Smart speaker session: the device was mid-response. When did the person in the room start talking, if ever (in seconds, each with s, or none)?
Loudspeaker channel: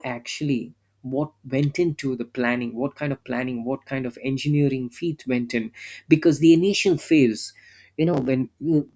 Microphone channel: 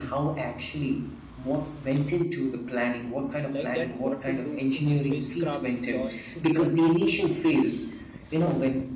3.5 s